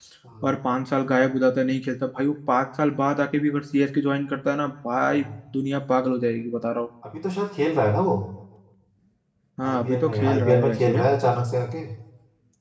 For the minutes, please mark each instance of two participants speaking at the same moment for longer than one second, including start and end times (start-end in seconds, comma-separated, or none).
9.7-11.0